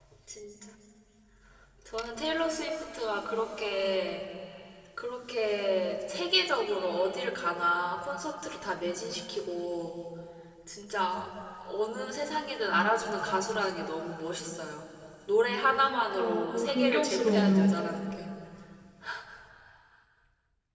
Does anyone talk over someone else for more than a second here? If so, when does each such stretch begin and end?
15.9-17.7

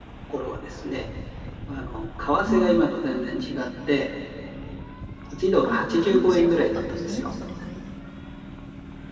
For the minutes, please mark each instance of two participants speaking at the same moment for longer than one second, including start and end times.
5.7-7.3

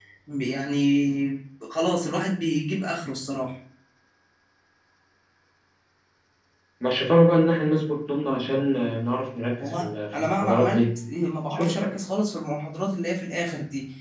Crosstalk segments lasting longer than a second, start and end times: 9.6-10.8

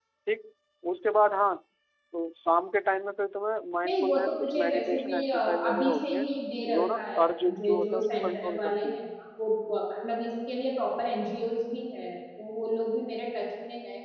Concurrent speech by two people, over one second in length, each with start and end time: 3.8-6.2, 6.7-9.0

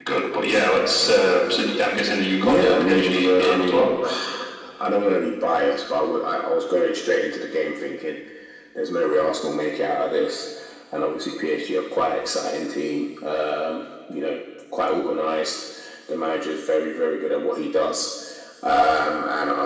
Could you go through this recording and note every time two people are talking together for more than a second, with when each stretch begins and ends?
2.4-3.8

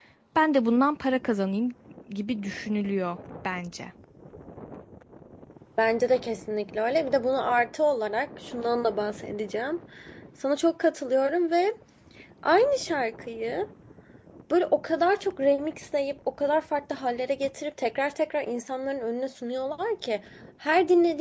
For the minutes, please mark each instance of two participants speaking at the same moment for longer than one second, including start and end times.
none

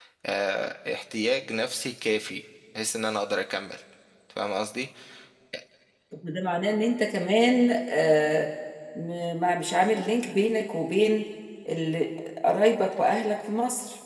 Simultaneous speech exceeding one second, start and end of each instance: none

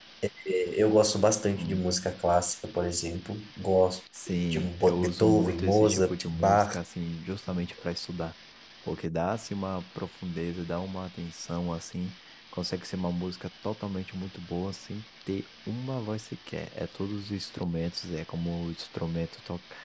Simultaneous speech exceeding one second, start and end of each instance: 4.5-6.8

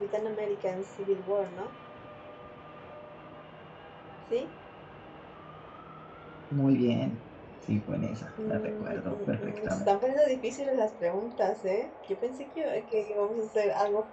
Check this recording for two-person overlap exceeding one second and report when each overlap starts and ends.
8.5-9.9

